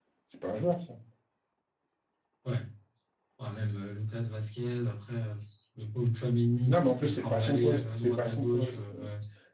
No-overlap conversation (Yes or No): No